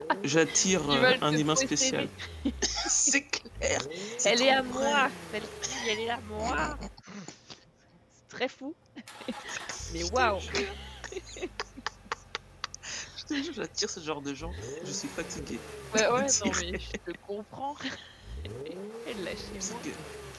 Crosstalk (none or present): present